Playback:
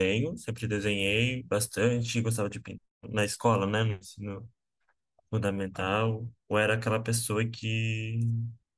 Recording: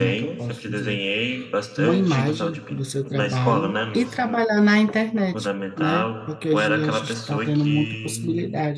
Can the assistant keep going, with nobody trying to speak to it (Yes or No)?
No